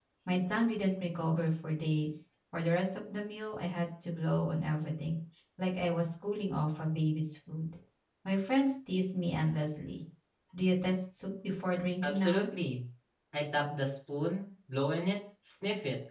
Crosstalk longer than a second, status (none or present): none